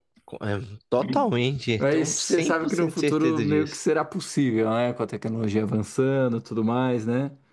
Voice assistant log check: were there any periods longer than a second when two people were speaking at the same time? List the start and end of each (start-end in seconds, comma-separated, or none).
1.8-3.8